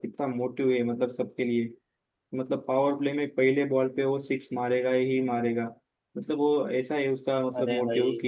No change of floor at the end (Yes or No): Yes